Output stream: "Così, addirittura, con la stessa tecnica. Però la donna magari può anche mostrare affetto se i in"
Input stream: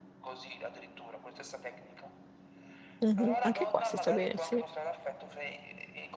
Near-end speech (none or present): present